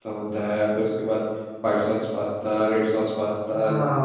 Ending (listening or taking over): taking over